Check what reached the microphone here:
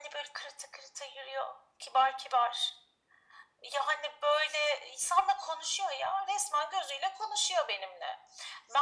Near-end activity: none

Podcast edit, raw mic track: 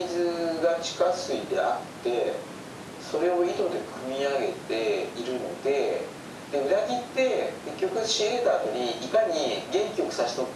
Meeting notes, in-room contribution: none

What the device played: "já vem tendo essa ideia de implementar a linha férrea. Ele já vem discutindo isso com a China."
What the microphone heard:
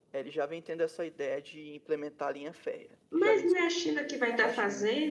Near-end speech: present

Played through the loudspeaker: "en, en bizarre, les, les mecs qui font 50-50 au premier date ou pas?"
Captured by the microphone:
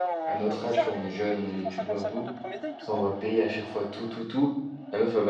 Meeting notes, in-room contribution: present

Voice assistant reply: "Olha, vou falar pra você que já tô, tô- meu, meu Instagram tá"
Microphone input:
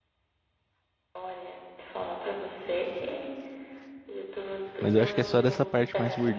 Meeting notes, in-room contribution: present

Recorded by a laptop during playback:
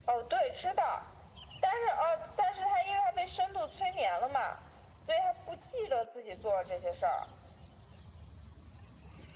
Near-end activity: none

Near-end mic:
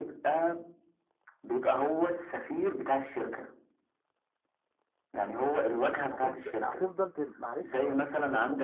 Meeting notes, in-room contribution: present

